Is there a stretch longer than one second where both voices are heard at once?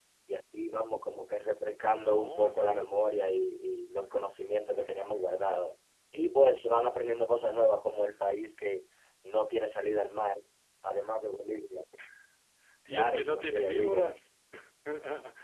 Yes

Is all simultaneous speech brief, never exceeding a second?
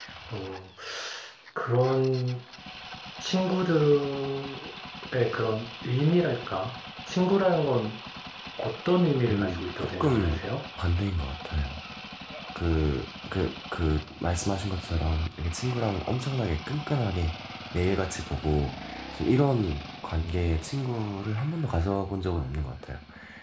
No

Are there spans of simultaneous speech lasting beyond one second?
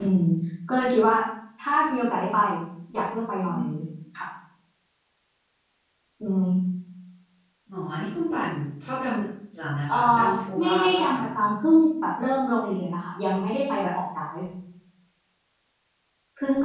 Yes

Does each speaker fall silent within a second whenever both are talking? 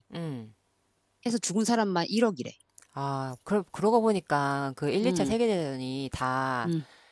Yes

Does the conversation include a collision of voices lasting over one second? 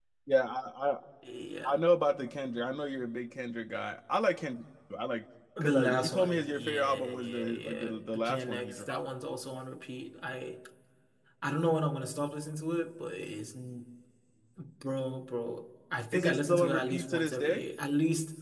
Yes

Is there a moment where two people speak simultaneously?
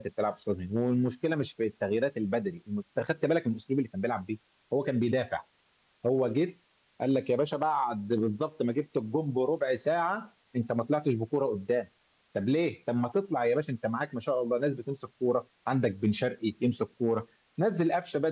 No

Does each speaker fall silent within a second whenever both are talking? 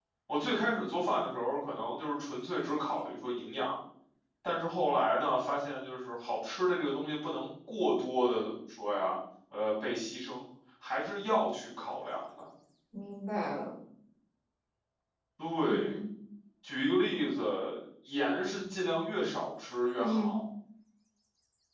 Yes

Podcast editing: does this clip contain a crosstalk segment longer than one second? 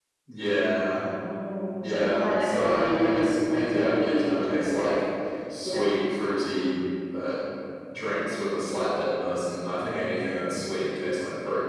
Yes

